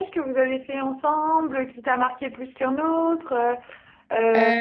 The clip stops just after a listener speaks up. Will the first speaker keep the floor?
Yes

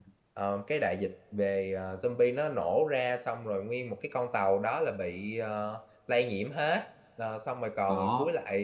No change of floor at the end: Yes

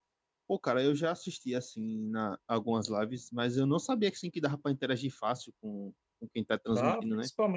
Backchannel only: No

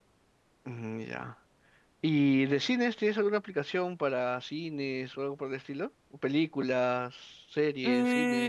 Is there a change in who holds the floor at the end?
Yes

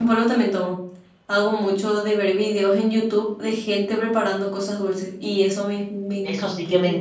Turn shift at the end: Yes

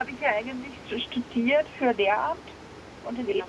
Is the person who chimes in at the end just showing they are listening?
Yes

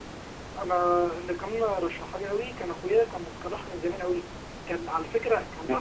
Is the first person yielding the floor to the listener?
No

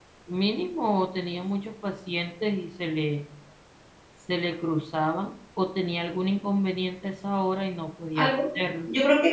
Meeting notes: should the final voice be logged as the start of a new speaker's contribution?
Yes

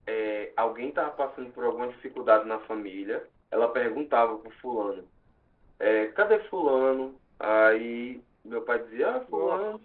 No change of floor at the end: Yes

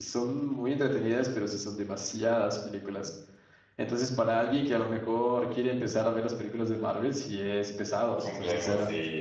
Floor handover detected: Yes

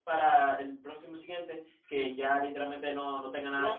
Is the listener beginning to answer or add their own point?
Yes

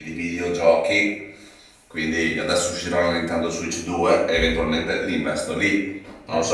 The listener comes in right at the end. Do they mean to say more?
Yes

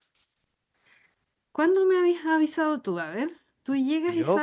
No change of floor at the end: Yes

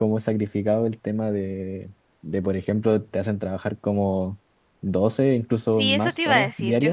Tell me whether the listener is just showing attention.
No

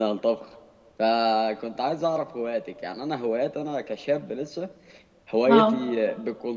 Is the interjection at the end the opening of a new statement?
No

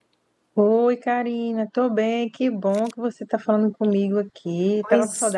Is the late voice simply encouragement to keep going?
No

